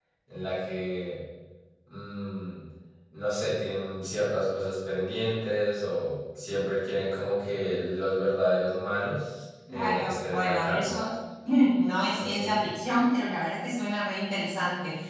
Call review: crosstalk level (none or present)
present